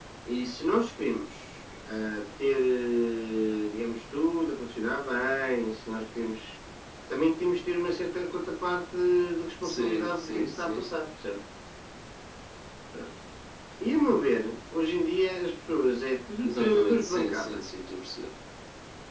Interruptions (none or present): present